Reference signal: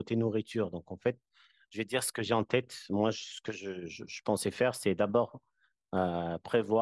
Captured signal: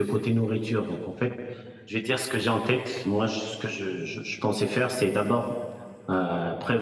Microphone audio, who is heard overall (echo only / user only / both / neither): echo only